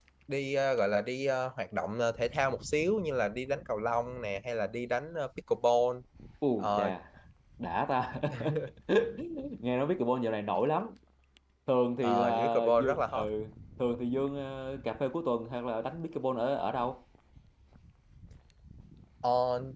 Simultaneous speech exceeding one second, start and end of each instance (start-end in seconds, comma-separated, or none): 12.0-13.3